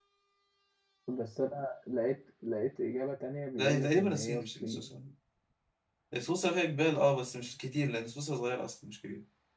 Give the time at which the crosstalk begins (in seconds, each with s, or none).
3.6 s